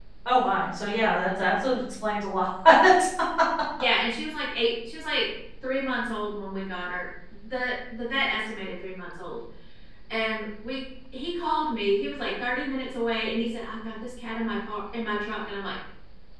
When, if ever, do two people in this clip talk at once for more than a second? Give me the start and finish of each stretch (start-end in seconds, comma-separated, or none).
none